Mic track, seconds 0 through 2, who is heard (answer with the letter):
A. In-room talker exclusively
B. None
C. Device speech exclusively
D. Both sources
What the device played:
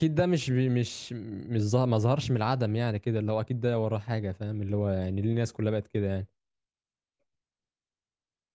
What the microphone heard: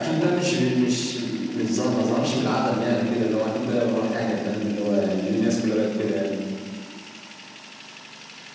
C